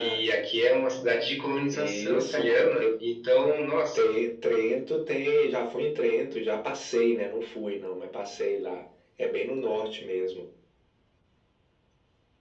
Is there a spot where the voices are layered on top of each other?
Yes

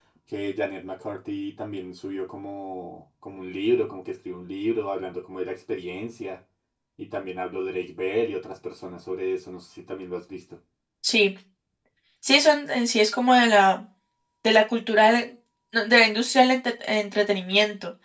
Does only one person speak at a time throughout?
Yes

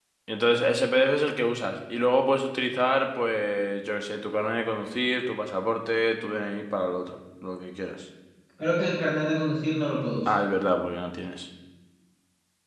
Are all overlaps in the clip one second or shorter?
Yes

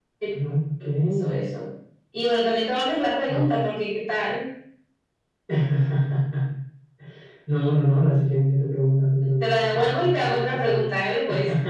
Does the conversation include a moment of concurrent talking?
Yes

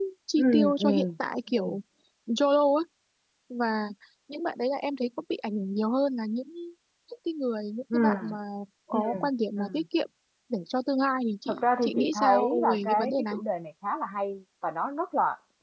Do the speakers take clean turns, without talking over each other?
No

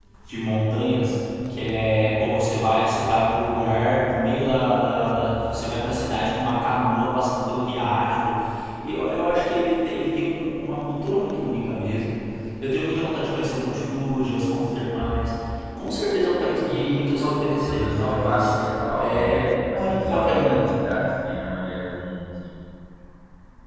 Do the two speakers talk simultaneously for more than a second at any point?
Yes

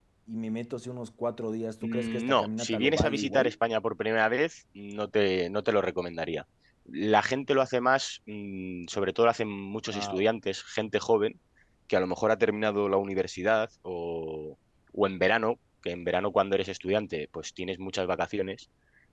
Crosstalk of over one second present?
Yes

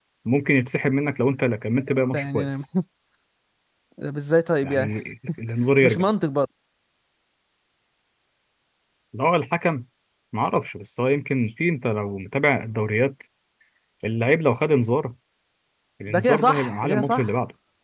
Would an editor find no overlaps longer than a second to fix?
No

